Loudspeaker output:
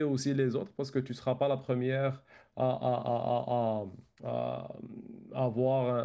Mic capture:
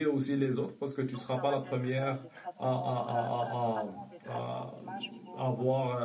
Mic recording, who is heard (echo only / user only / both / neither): both